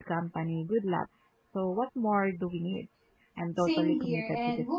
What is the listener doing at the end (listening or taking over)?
taking over